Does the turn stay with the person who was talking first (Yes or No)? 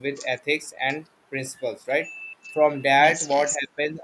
Yes